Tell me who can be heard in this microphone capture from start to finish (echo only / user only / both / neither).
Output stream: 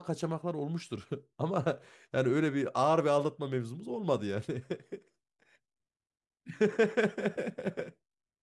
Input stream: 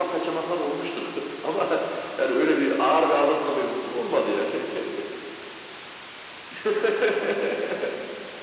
echo only